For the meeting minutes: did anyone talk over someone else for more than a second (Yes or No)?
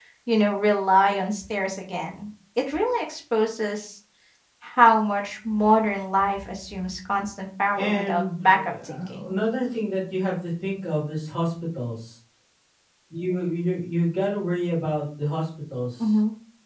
Yes